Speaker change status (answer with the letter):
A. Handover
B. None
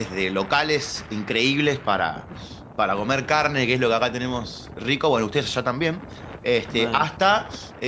B